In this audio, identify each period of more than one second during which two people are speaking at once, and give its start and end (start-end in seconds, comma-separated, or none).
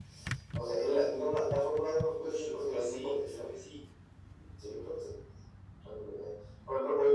2.2-3.5